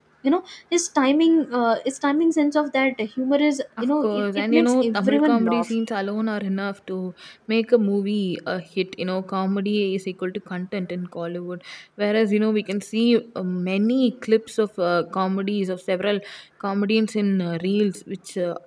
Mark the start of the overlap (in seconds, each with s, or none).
3.8 s